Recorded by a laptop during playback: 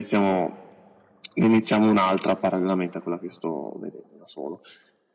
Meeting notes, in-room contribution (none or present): none